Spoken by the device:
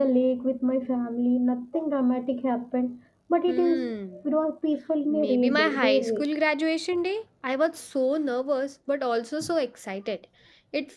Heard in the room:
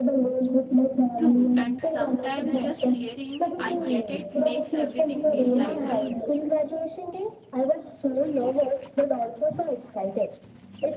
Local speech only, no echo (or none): True, and sometimes just hearing I get it makes everything feel lighter.